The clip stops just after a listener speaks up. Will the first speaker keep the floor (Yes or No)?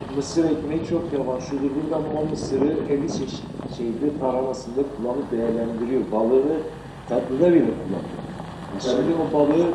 Yes